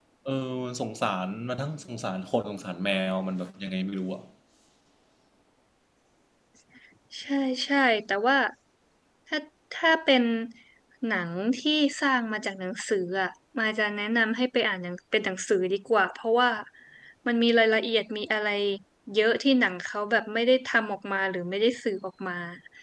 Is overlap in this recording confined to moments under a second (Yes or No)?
Yes